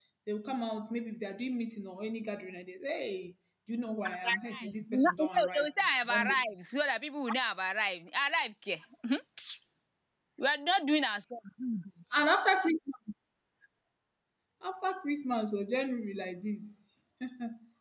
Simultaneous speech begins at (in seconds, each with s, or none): 4.0 s